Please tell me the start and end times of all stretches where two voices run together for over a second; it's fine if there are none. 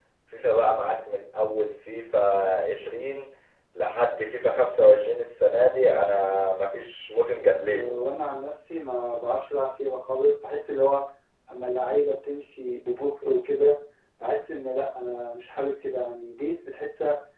none

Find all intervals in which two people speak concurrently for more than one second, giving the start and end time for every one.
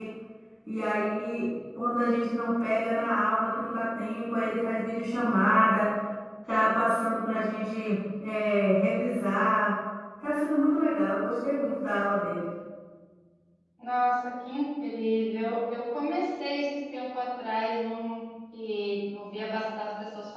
none

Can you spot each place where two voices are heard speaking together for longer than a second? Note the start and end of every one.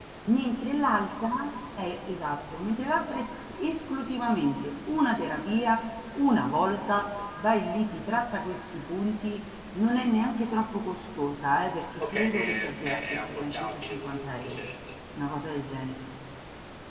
12.0-14.7

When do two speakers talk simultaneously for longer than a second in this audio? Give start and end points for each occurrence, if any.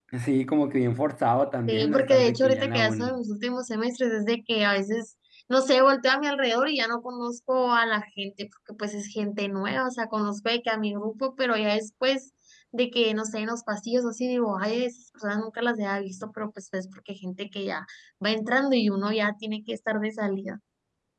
1.7-3.2

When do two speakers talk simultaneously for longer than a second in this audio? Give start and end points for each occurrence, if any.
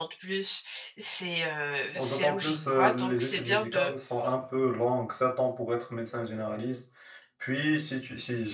1.9-3.9

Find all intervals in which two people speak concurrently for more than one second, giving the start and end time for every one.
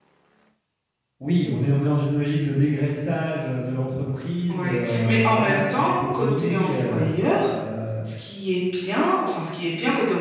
4.5-7.0

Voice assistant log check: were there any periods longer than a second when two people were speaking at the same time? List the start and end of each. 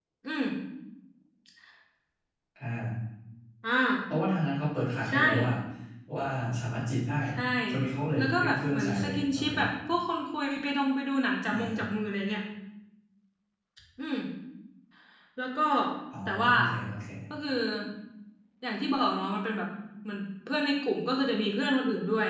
8.2-9.5

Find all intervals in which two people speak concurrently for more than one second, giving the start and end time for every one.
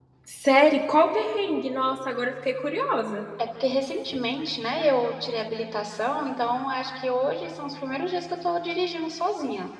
none

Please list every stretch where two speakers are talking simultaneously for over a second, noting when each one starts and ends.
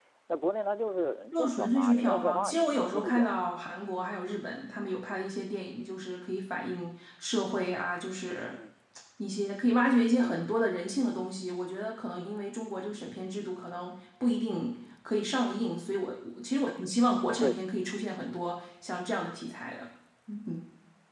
1.3-3.4

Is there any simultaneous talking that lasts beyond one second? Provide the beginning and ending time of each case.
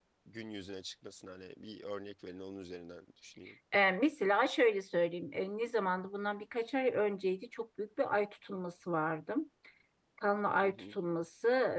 none

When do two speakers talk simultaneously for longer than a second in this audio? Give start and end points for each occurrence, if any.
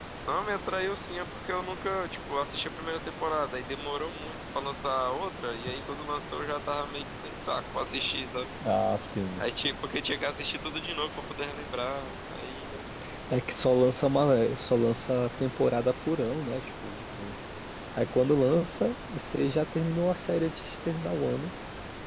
none

